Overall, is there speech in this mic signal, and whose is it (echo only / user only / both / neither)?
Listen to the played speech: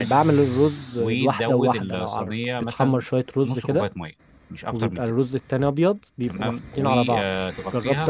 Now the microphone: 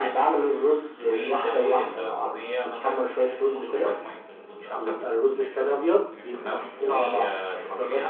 both